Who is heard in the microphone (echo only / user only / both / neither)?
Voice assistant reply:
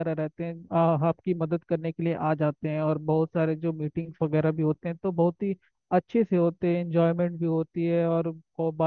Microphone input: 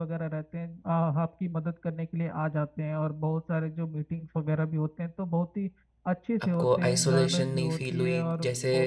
both